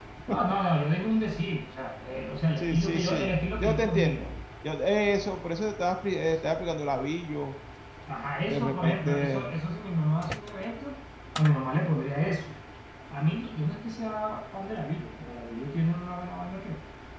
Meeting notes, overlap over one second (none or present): present